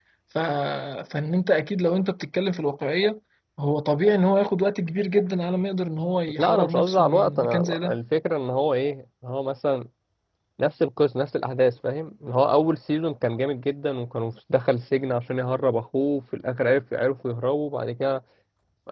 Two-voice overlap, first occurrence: 6 s

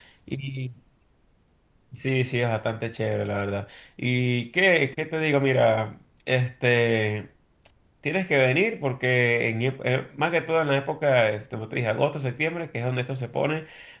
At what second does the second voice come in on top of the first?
none

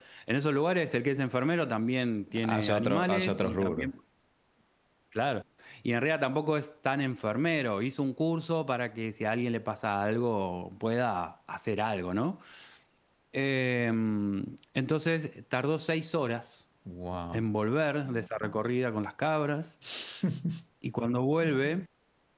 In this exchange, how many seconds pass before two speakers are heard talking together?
2 s

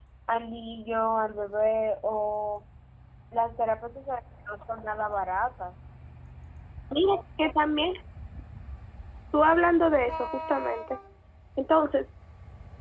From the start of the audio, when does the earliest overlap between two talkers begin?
none

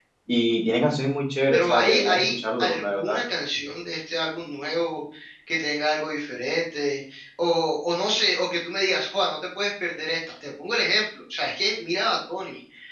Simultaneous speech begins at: 2 s

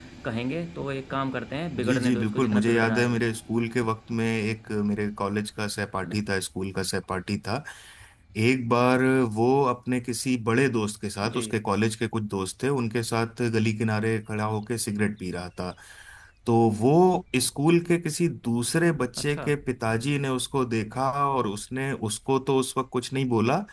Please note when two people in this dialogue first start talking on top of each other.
2 s

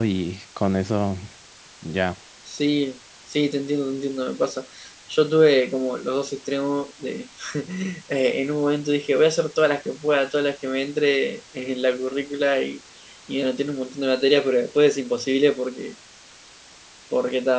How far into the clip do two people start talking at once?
none

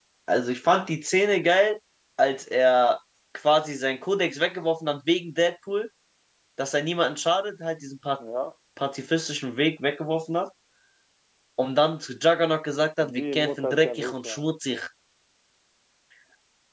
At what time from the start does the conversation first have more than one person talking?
13 s

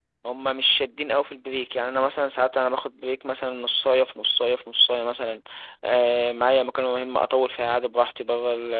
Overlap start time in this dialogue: none

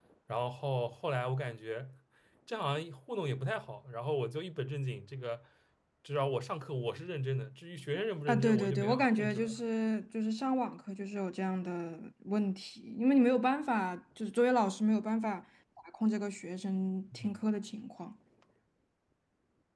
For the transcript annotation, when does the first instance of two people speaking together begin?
8 s

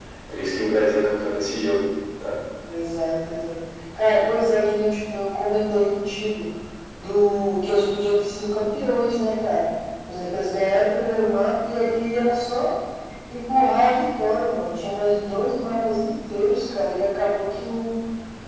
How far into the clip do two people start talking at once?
none

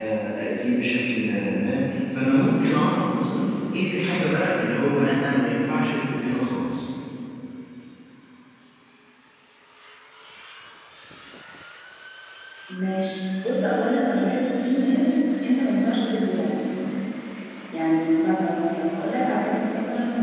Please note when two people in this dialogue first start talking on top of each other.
none

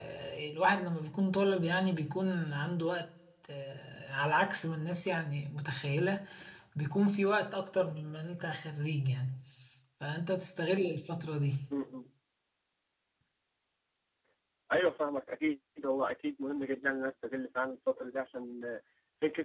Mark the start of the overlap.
none

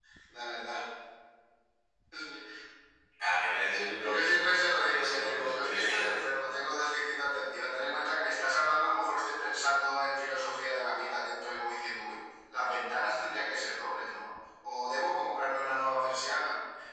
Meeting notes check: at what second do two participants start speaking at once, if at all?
4 s

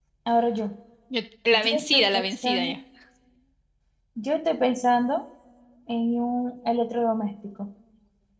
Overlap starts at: 2 s

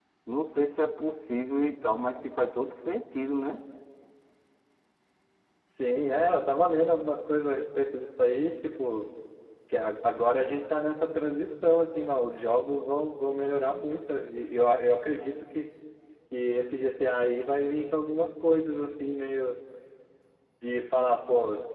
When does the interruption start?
none

